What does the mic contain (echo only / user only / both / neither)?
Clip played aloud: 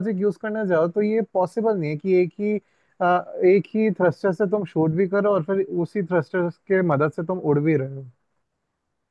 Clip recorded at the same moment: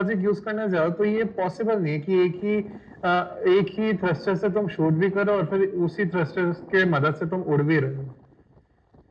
echo only